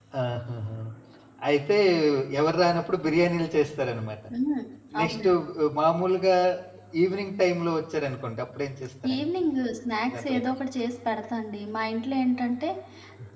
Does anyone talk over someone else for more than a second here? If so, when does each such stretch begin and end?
none

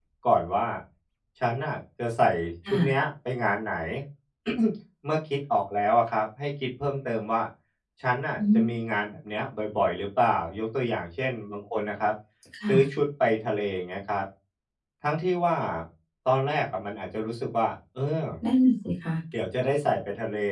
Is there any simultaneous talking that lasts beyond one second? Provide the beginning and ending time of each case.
none

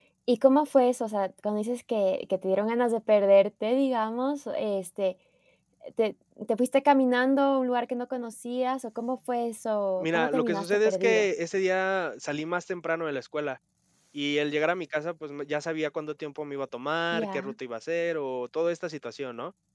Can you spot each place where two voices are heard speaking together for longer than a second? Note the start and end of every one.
10.0-11.2

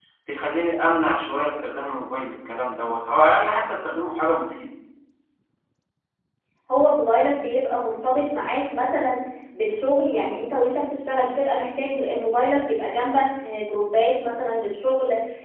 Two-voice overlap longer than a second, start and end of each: none

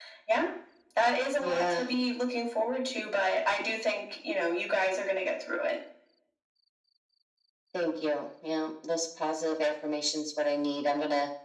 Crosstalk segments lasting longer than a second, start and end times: none

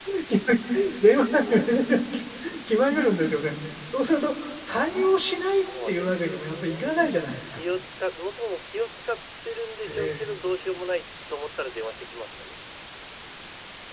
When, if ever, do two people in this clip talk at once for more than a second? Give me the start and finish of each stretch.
5.5-7.6

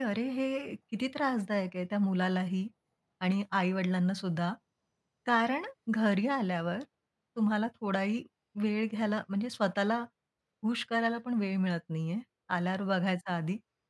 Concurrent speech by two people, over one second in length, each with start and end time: none

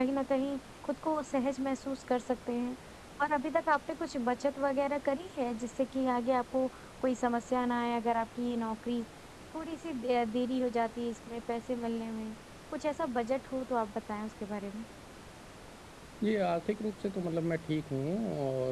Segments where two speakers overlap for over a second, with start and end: none

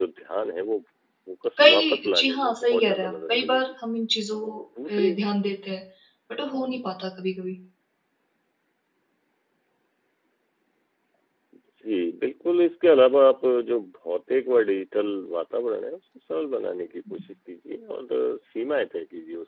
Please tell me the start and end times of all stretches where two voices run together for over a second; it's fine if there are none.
1.6-3.6

